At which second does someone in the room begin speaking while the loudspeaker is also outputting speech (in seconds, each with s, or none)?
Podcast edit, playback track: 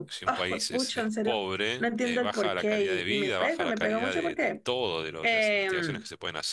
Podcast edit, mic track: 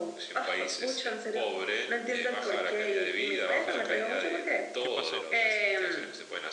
3.5 s